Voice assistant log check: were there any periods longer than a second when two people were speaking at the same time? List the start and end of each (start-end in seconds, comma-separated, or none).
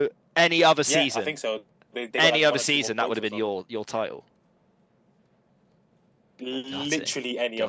2.2-3.5